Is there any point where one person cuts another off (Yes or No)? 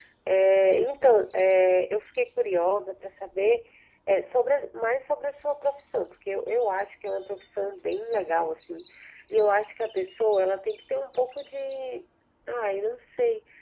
No